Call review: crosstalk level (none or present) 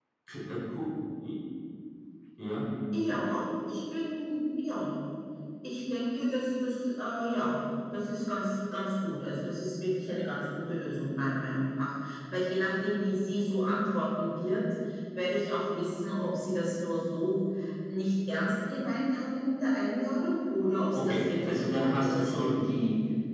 present